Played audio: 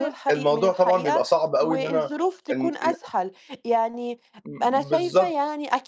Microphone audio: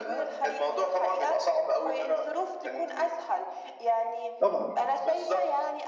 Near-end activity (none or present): present